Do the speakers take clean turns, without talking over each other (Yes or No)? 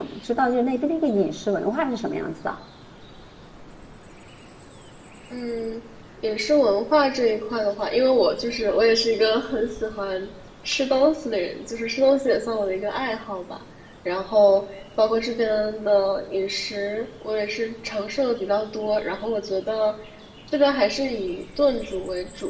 Yes